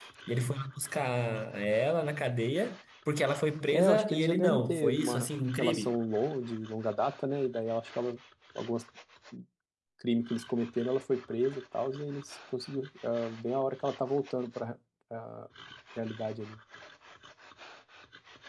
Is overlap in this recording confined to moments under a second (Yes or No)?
No